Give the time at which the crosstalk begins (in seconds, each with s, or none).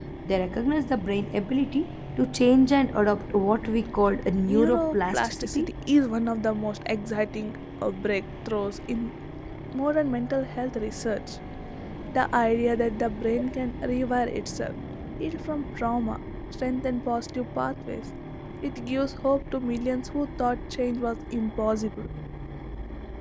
4.5 s